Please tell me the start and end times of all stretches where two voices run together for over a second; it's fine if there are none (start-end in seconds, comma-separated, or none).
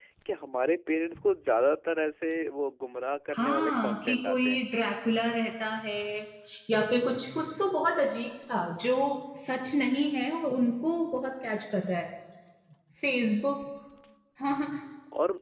3.4-4.6